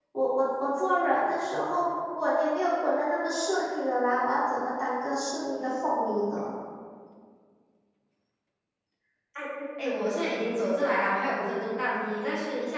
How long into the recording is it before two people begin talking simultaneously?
none

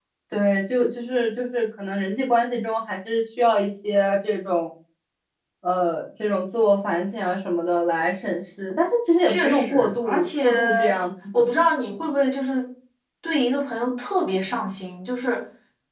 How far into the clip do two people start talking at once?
9.2 s

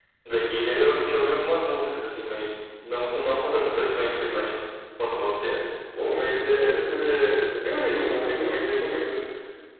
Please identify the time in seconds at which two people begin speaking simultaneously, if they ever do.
none

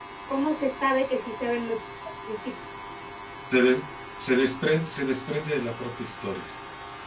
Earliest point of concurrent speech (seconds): none

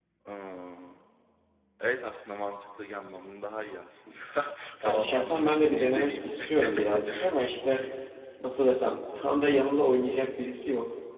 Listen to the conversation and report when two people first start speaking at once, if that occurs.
4.8 s

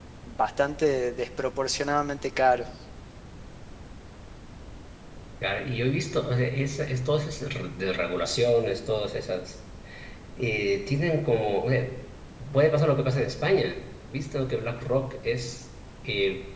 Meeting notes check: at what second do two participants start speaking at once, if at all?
none

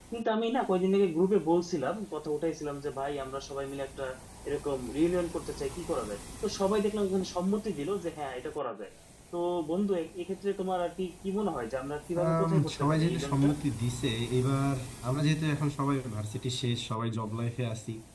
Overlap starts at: 12.2 s

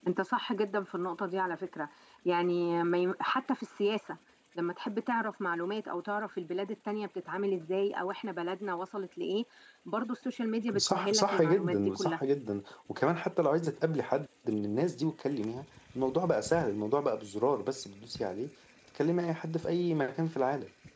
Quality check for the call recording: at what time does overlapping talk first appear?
10.7 s

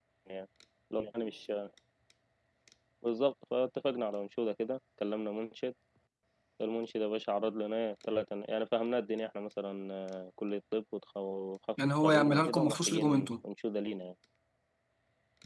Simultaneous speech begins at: 12.0 s

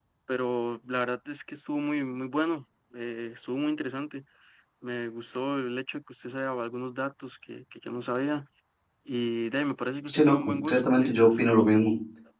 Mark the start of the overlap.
10.1 s

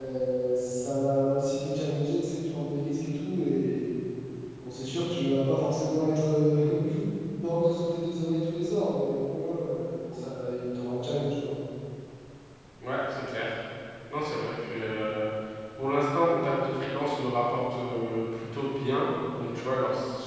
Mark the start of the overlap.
none

